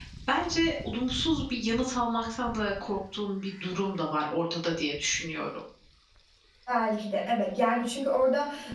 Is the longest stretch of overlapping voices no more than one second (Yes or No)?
Yes